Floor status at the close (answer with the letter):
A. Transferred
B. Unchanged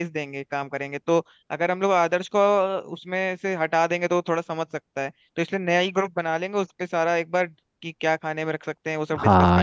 A